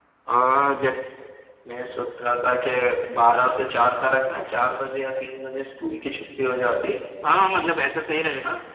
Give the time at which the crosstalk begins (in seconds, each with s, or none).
none